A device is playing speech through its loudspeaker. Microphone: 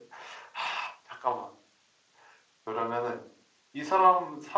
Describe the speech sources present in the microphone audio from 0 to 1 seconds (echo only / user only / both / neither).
echo only